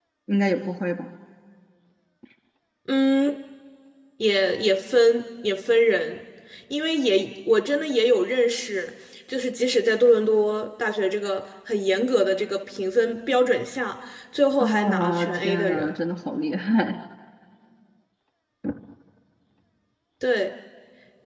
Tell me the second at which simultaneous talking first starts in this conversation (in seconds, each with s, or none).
14.6 s